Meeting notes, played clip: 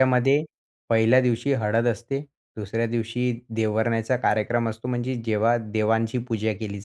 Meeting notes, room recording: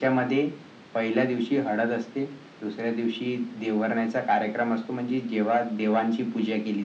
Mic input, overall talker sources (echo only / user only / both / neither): echo only